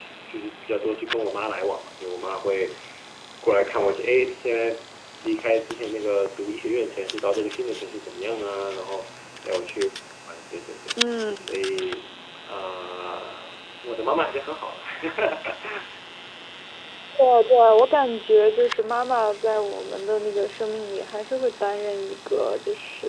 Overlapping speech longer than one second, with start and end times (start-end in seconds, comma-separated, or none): none